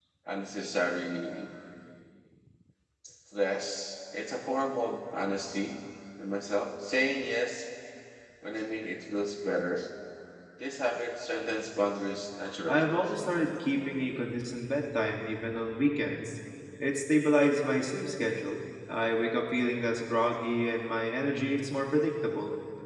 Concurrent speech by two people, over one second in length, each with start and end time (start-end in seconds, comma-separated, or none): none